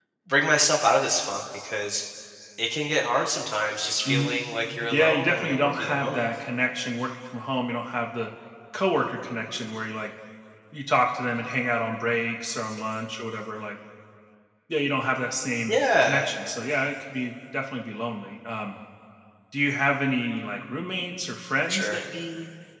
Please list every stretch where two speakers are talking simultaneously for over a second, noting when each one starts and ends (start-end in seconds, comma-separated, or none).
4.9-6.3